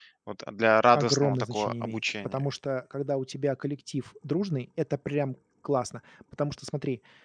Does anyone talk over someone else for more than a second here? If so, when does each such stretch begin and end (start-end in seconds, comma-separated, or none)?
0.9-2.4